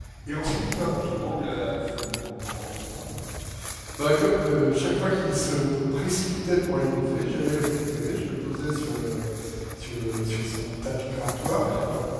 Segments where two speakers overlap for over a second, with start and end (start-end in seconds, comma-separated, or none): none